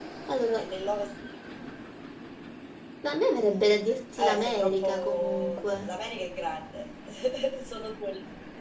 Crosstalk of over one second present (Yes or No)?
Yes